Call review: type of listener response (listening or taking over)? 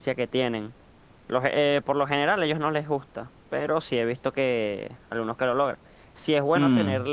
listening